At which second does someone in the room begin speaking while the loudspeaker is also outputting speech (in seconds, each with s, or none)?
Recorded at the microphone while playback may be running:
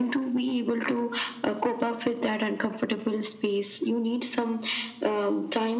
none